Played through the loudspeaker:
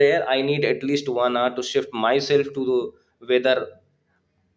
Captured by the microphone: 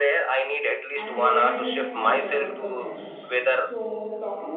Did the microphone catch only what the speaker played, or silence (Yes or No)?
No